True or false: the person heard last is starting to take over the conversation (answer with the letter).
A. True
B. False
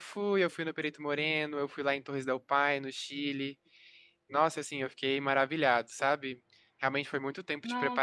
B